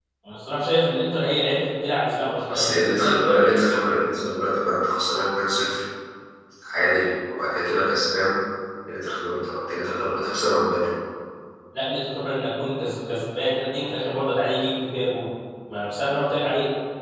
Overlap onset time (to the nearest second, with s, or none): 2 s